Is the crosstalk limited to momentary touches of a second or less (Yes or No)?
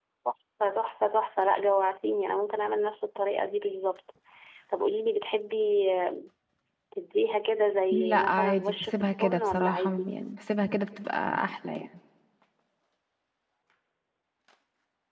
No